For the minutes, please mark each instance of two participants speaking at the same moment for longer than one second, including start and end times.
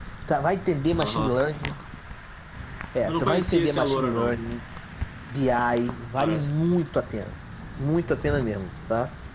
3.1-4.4

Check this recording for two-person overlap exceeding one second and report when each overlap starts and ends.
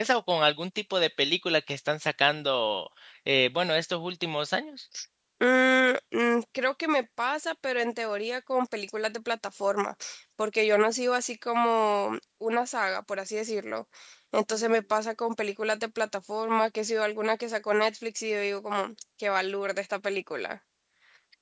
none

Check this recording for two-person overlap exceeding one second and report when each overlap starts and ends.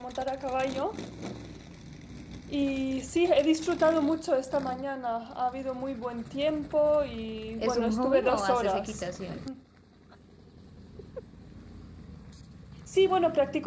7.6-9.0

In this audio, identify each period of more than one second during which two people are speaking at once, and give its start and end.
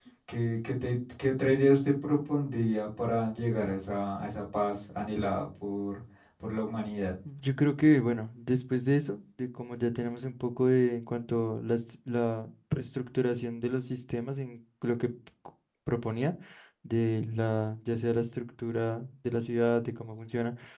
none

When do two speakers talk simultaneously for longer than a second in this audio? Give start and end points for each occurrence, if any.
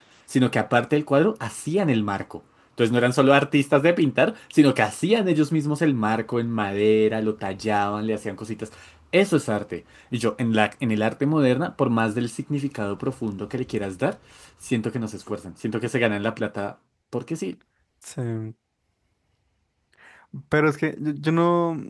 none

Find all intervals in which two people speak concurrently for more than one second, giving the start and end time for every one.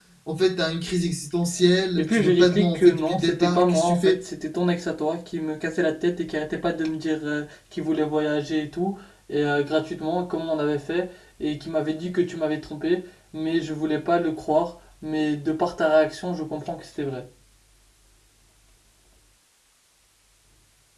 2.0-4.2

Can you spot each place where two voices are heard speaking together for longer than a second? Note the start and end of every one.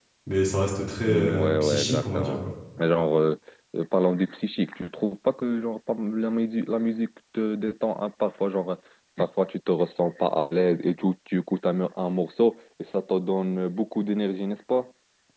1.0-2.5

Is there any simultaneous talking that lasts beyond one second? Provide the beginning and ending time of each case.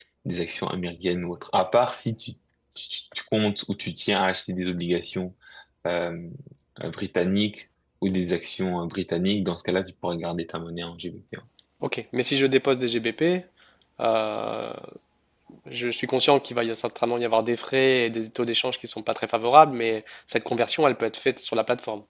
none

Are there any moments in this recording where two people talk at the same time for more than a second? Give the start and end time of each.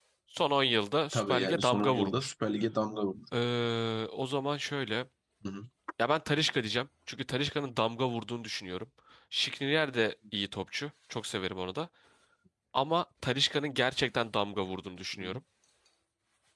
1.1-2.3

